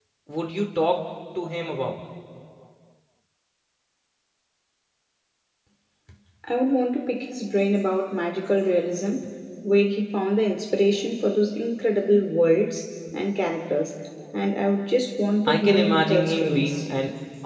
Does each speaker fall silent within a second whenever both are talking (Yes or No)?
No